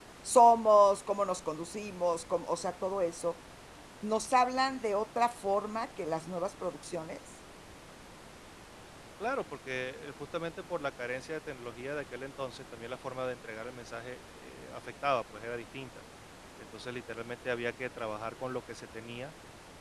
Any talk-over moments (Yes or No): No